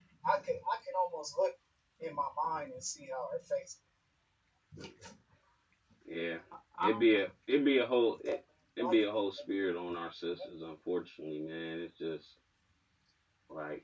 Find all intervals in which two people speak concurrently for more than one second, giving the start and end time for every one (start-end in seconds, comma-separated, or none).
none